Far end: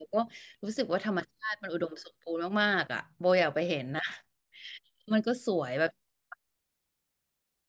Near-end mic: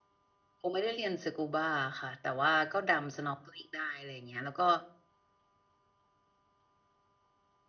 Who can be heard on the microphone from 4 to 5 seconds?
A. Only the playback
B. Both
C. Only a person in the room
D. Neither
C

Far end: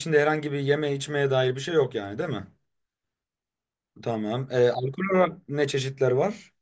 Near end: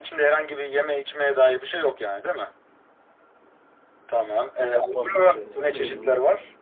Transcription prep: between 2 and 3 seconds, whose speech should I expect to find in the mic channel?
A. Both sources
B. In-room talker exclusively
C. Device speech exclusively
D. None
C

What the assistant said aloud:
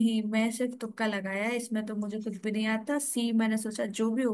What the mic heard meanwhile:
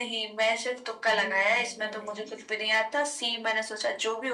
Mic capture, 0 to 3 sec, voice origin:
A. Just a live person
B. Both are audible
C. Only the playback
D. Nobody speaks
B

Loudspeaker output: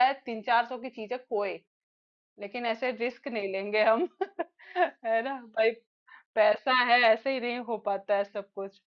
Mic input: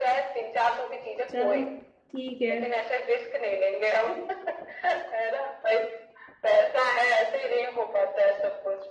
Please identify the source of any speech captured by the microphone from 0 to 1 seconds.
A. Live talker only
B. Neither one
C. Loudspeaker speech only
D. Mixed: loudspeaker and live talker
C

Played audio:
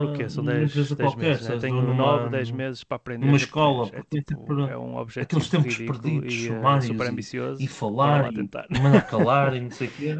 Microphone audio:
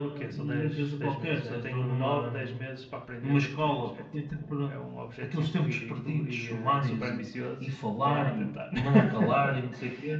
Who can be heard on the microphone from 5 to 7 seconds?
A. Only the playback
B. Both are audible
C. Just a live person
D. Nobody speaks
A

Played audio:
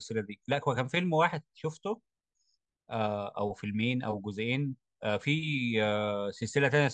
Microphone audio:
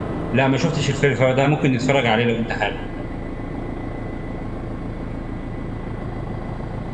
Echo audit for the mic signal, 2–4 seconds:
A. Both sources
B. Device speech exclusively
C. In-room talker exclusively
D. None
C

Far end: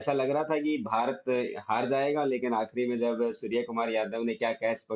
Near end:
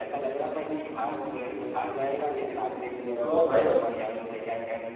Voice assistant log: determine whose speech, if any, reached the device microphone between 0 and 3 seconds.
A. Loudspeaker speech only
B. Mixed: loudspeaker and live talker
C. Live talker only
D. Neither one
A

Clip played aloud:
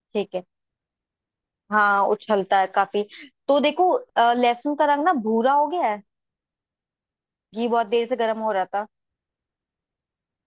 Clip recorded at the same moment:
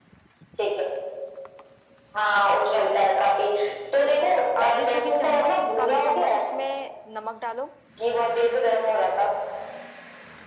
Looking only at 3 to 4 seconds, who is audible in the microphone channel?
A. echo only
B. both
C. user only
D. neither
A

